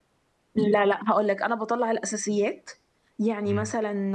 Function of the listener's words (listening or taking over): listening